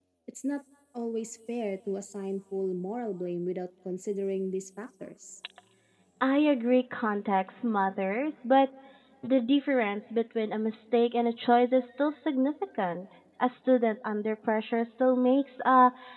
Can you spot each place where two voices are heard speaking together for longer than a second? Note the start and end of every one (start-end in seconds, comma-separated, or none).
none